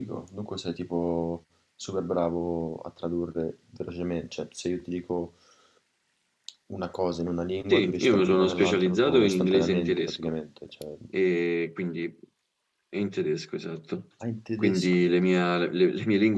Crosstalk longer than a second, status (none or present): present